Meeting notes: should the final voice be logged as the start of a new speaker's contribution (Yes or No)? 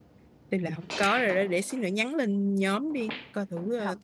Yes